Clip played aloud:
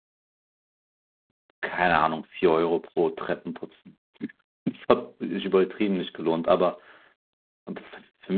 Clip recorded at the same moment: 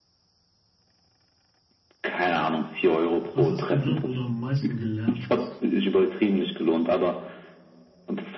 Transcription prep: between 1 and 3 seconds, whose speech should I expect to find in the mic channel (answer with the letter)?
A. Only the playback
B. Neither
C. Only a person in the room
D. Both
A